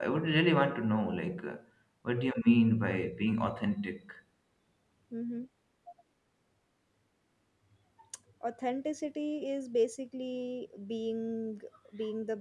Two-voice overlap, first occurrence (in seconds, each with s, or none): none